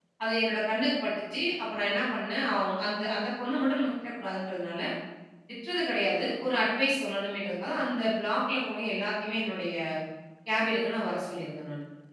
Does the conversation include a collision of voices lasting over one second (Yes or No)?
No